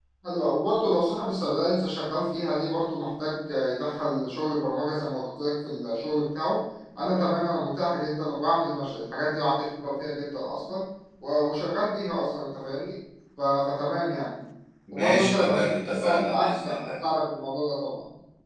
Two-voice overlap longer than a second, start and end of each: 14.9-16.9

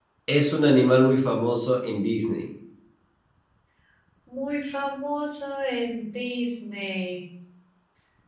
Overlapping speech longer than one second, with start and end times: none

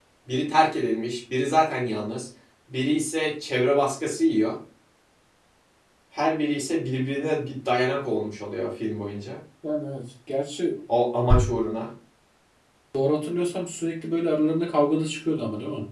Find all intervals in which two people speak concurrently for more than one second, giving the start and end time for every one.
none

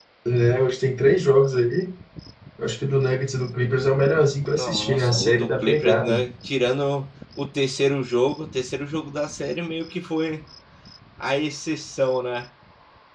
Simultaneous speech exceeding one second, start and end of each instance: 4.6-6.2

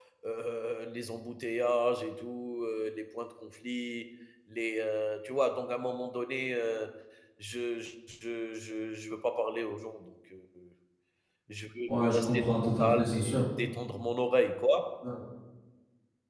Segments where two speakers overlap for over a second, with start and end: 11.9-13.4

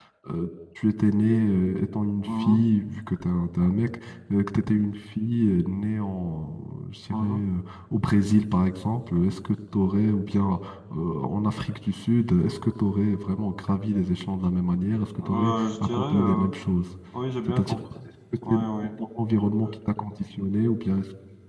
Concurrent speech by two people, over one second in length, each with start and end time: 15.2-16.5

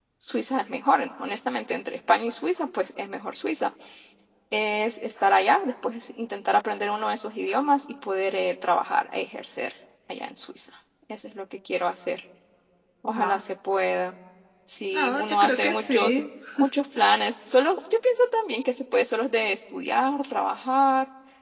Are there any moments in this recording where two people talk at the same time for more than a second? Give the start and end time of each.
14.9-16.2

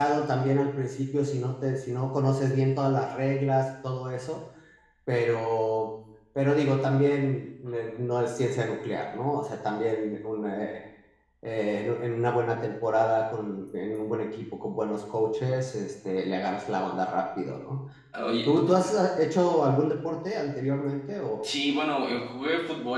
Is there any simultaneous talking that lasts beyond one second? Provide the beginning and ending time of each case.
none

